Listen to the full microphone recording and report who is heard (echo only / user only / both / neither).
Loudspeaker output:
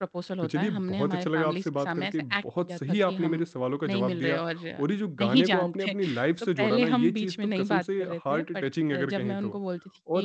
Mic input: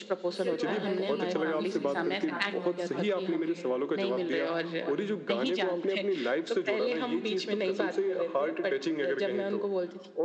both